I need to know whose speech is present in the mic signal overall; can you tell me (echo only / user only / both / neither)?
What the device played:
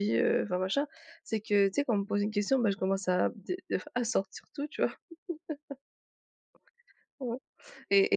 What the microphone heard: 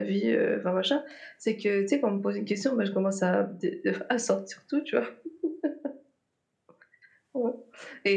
echo only